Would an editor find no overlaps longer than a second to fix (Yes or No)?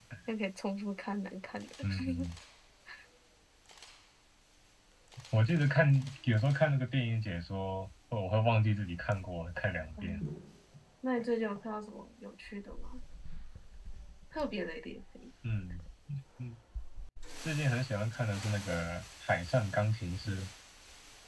Yes